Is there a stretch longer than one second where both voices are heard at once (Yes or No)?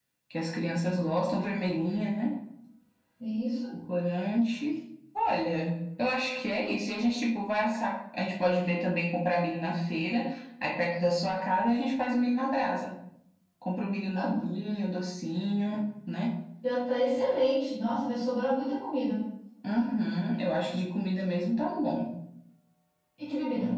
No